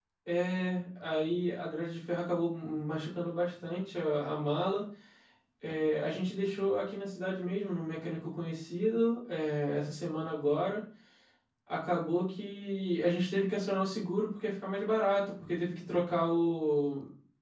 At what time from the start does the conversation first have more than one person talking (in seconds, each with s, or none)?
none